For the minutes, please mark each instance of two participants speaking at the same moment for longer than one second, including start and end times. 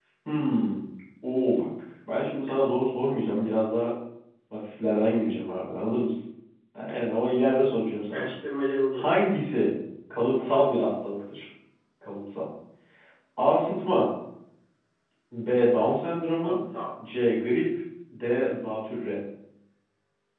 none

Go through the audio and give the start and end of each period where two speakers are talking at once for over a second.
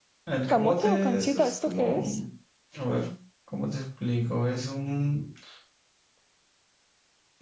0.5-2.0

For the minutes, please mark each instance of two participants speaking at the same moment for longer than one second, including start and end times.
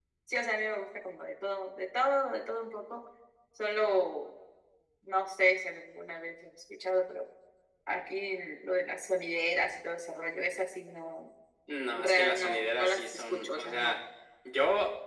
11.9-14.0

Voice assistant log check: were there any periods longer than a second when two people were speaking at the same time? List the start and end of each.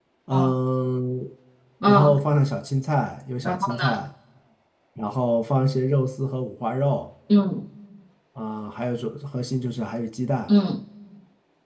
none

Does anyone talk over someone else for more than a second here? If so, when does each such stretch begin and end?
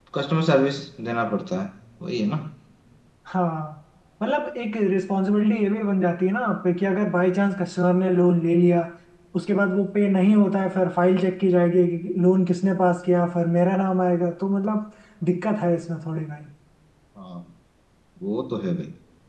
none

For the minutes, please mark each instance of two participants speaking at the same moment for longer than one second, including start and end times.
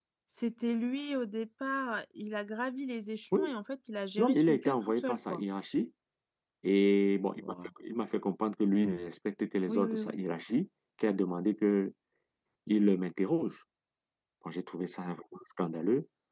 4.2-5.4

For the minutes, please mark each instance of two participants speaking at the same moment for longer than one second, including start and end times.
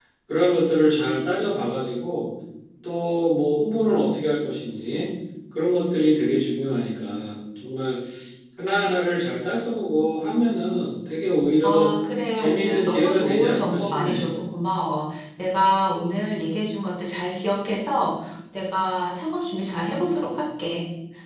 12.3-14.3

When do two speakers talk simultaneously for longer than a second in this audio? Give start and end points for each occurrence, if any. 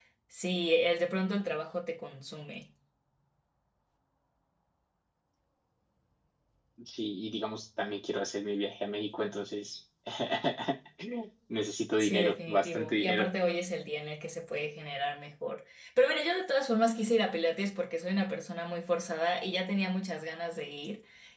12.0-13.3

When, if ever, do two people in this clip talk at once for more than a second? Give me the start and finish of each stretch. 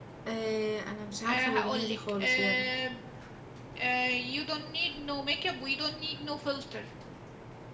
1.2-2.7

